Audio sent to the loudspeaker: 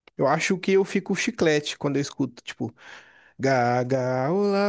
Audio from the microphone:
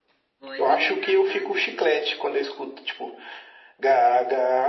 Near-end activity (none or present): present